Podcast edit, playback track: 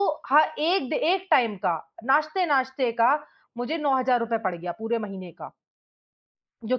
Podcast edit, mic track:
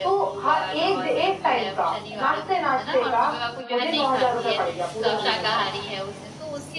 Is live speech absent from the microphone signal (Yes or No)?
No